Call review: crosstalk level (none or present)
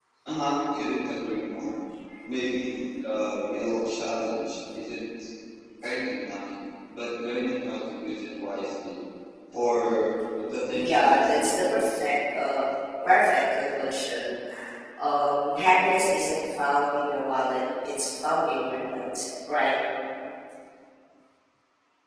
present